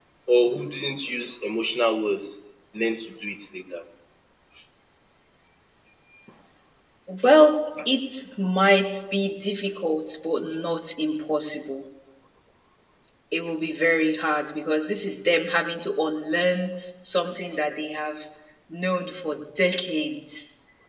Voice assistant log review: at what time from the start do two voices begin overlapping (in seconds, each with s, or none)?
none